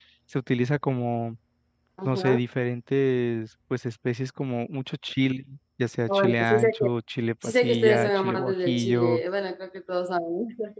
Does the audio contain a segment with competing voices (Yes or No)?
Yes